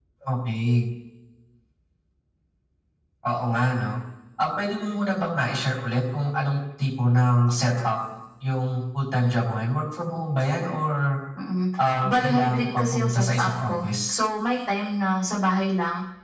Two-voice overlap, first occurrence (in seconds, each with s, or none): 12.1 s